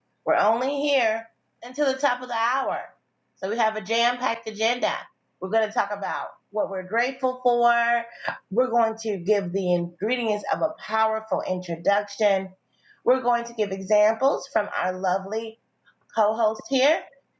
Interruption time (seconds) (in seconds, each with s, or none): none